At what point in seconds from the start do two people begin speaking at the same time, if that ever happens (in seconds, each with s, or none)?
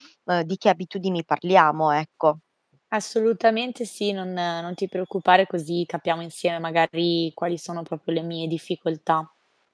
none